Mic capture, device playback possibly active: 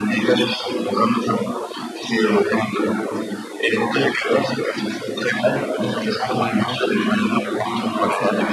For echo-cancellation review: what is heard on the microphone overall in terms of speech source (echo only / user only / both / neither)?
both